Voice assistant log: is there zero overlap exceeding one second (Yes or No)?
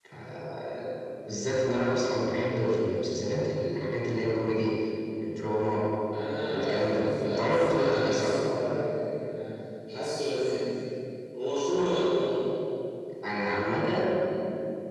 No